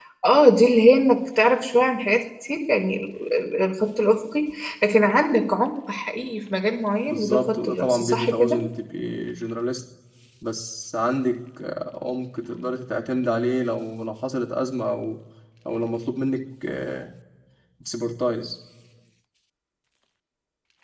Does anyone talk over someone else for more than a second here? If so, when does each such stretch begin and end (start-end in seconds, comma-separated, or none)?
7.1-8.7